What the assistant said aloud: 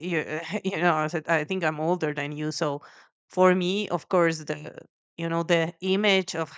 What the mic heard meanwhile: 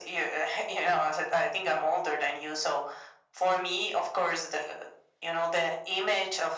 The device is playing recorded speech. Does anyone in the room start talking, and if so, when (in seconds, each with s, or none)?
none